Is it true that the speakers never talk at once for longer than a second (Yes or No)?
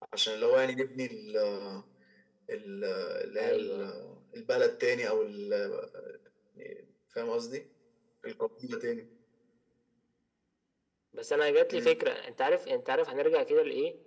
Yes